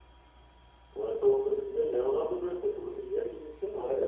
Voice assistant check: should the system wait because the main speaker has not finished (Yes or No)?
No